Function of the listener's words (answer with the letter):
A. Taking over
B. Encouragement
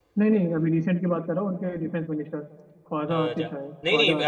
A